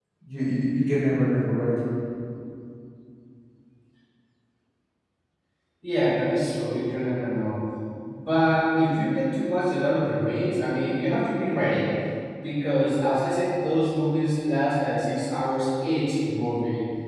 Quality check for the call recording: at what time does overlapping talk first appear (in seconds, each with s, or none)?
none